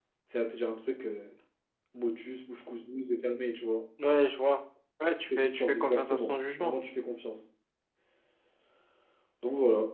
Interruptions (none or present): present